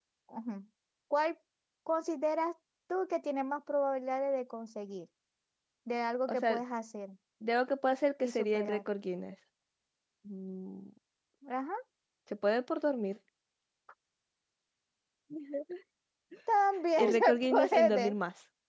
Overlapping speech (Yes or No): Yes